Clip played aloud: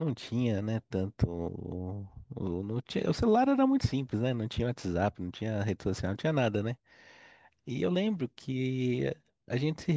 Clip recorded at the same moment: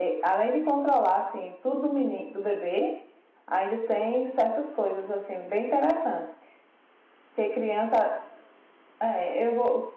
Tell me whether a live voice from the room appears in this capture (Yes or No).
Yes